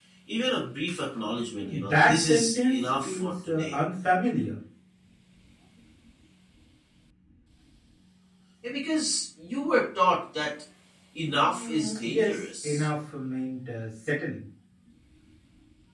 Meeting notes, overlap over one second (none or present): present